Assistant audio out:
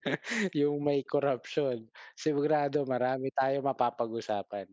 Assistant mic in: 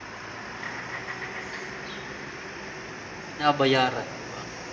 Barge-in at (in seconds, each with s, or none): 3.2 s